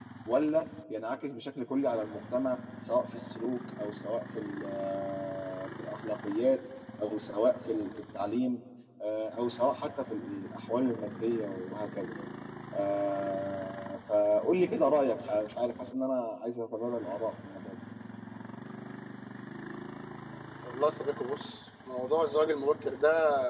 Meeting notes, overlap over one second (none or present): none